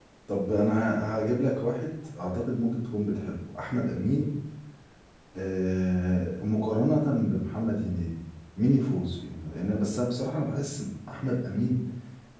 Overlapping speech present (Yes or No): No